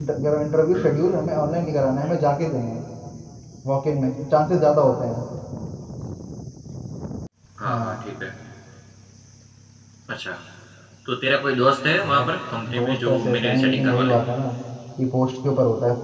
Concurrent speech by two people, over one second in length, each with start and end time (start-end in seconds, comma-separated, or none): 12.7-14.2